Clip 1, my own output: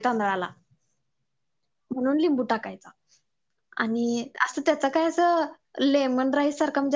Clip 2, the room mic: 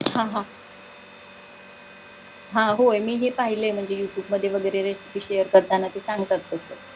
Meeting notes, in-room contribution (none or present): present